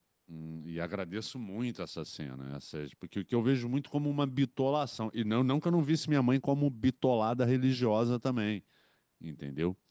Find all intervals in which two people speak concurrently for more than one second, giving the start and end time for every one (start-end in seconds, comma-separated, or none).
none